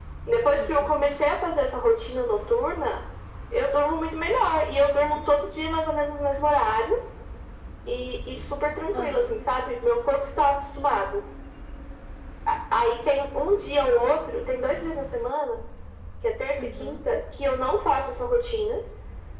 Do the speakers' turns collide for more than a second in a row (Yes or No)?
No